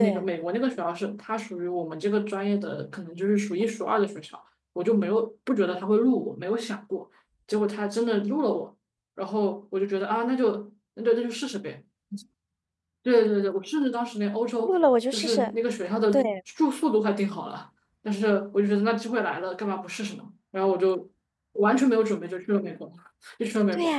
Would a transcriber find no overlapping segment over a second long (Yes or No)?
Yes